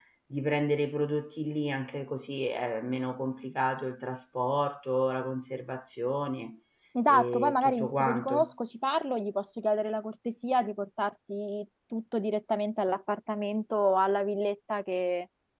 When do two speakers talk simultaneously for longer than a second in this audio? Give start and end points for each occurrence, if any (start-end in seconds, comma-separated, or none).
7.1-8.5